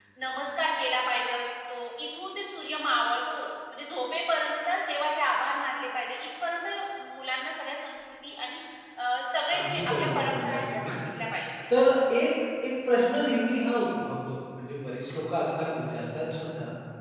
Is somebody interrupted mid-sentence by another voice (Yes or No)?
Yes